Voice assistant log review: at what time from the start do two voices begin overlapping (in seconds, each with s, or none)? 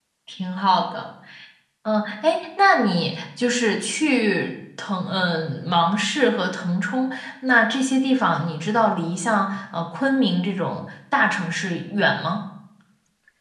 none